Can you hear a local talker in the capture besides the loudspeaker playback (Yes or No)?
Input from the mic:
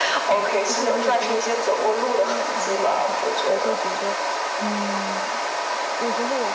Yes